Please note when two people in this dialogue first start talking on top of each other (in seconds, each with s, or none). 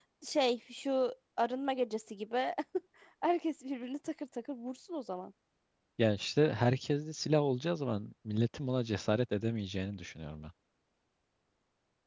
none